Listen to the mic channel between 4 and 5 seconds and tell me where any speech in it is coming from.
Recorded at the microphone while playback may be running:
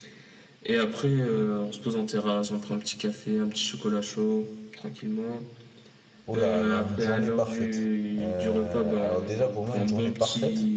echo only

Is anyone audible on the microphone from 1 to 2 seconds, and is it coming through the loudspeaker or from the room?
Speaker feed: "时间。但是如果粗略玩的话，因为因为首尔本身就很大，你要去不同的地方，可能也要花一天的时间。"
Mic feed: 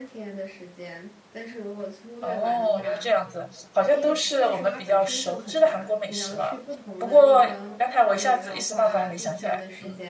echo only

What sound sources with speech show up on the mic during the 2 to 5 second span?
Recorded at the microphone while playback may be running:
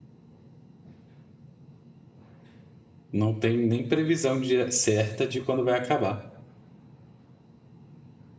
user only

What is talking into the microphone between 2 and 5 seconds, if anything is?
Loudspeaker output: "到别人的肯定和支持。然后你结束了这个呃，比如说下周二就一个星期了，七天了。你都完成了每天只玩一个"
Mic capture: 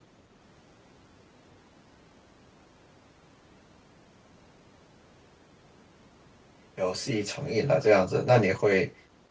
neither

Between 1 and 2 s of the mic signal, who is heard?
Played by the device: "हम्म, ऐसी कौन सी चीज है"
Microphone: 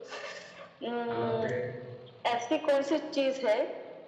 both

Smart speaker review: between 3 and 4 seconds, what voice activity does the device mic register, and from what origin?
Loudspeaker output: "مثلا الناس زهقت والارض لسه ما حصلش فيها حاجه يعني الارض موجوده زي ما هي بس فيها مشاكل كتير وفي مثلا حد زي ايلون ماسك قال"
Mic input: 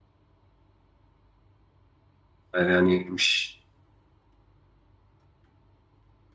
user only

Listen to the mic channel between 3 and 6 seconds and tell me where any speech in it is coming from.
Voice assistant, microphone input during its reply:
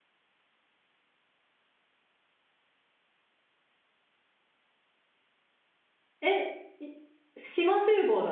neither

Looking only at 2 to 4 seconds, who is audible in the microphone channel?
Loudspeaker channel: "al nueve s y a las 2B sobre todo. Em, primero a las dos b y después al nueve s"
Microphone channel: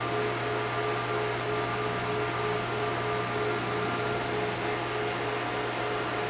neither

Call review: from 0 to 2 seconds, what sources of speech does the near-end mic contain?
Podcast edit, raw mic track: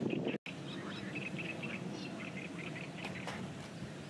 neither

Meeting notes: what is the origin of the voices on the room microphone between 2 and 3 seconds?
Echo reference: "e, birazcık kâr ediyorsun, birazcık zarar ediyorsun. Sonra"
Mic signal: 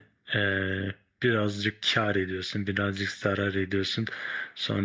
echo only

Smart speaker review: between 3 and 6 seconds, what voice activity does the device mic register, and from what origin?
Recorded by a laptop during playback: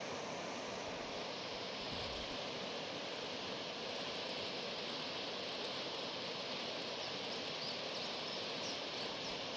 neither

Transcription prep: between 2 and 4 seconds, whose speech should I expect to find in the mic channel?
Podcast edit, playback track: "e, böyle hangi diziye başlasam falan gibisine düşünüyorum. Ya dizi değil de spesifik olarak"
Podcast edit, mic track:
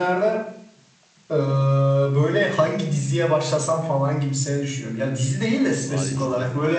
echo only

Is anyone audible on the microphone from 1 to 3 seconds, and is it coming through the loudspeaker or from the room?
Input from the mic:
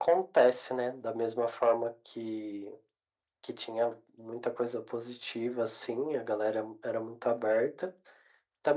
echo only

